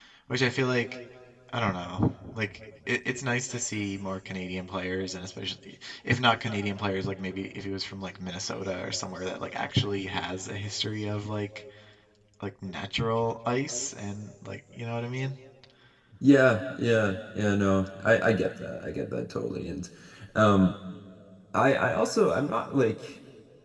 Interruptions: none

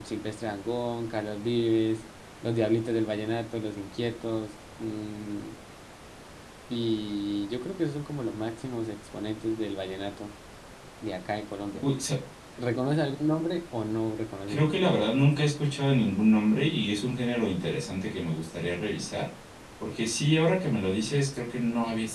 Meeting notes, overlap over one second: none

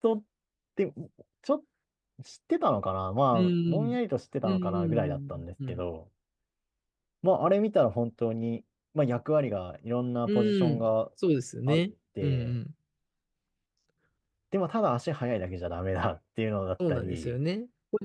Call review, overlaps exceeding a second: present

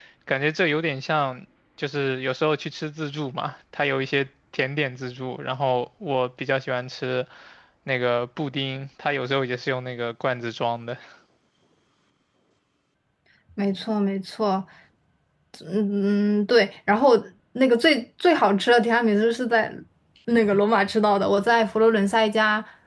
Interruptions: none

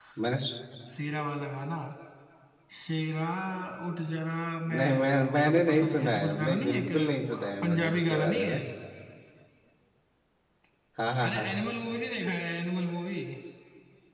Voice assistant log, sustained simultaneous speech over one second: present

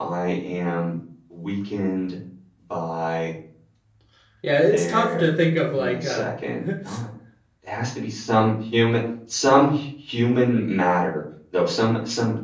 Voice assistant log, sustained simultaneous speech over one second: none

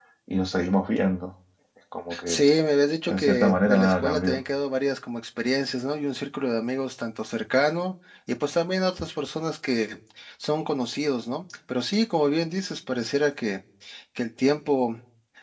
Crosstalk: present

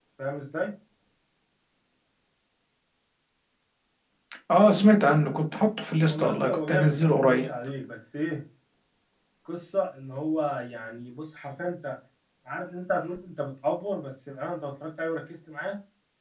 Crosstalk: present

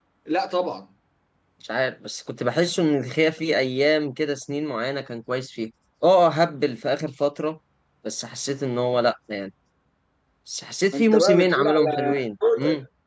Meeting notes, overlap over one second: present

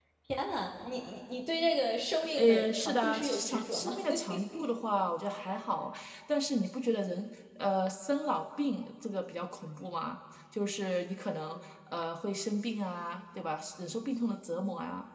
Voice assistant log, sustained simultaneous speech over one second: present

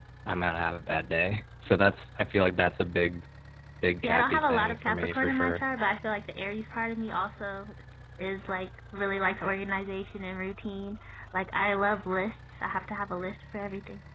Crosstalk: present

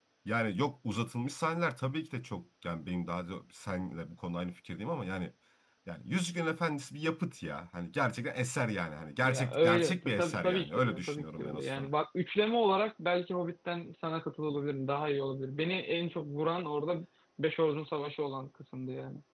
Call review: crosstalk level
present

